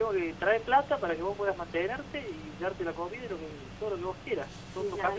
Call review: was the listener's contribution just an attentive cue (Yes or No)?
No